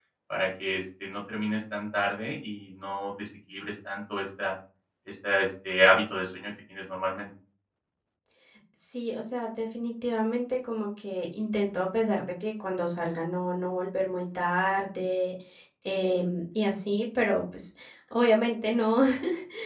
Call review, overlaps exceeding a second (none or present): none